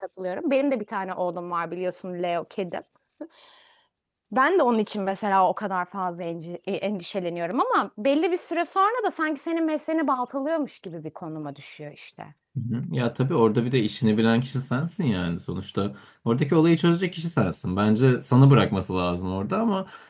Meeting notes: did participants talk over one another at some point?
No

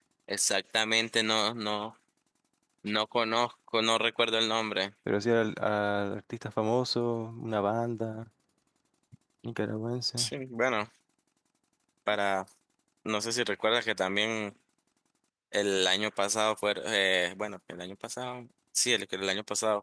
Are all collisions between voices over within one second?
Yes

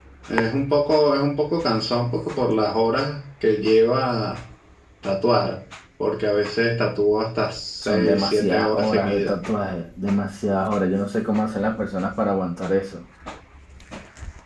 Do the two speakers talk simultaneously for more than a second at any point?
Yes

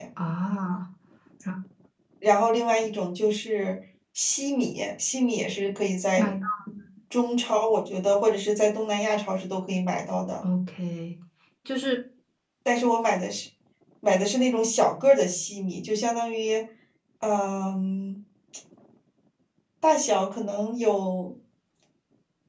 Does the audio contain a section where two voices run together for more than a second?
No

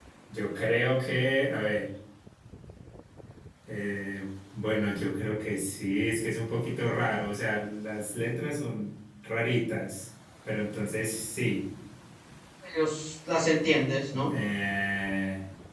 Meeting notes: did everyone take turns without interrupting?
Yes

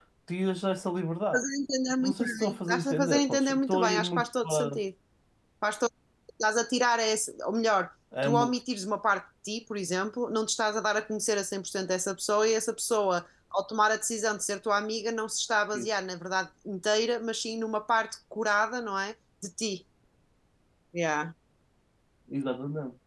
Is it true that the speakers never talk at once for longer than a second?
No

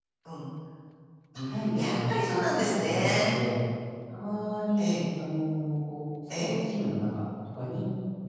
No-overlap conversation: No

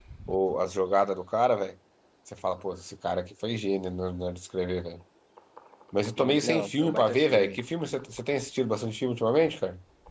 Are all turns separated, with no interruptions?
No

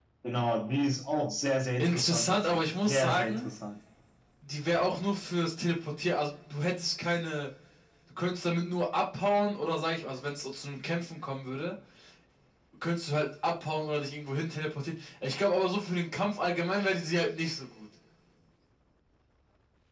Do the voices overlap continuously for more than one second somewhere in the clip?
Yes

